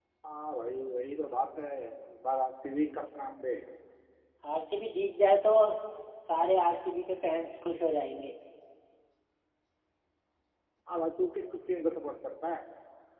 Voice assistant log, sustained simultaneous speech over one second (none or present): none